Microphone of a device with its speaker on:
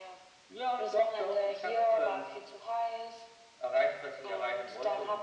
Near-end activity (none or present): none